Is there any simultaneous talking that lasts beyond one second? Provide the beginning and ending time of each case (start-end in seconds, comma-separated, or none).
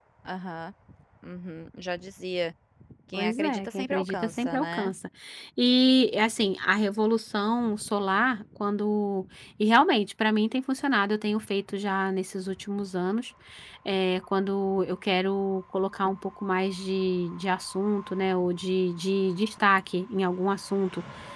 3.1-4.9